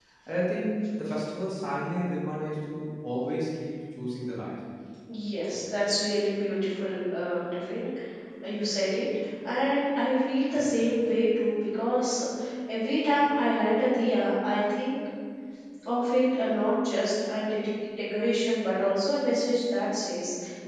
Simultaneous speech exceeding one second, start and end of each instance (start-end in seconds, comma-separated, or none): none